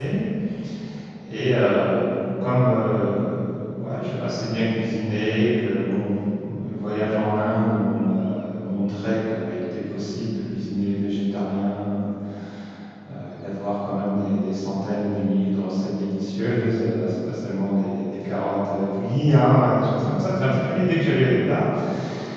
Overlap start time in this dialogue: none

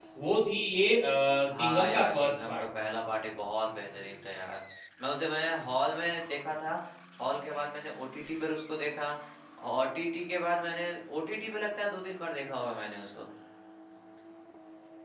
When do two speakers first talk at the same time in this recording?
2 s

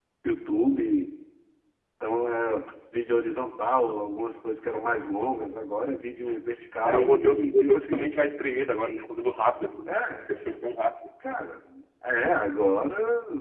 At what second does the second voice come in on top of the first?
7 s

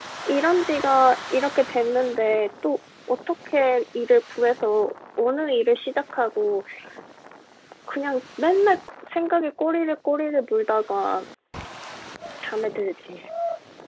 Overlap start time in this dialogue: none

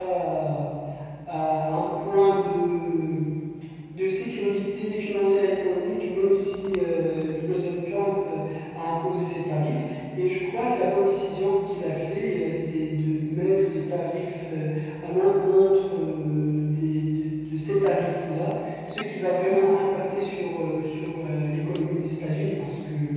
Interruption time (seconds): none

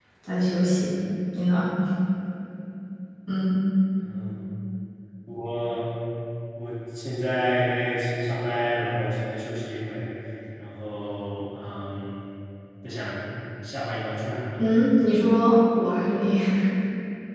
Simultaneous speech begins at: none

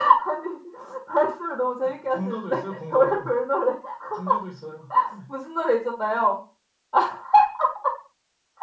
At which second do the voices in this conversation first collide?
2 s

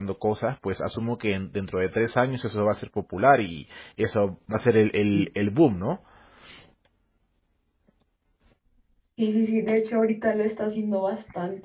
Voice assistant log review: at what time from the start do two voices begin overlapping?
none

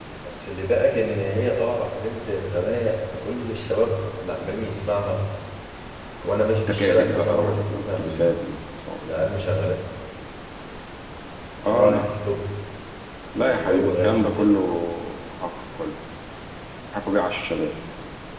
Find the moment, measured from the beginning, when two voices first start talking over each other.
7 s

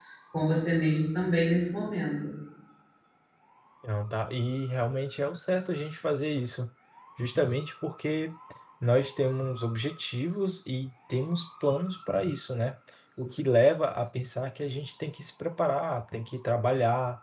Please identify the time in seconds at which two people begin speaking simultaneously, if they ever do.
none

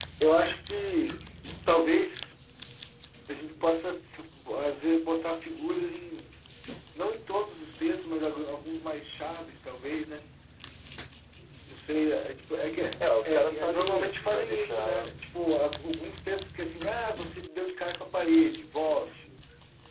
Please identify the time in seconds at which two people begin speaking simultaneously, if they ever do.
13 s

